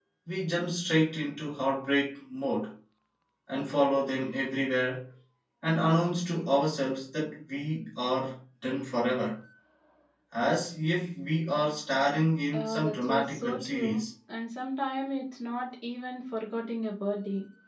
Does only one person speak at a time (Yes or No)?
No